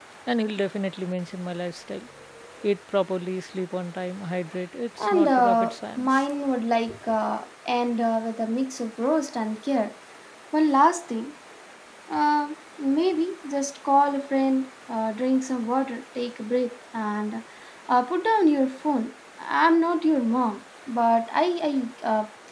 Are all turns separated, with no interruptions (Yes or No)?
No